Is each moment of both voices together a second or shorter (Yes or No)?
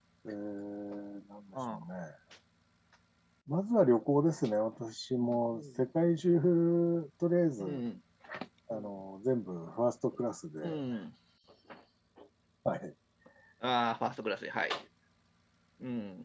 Yes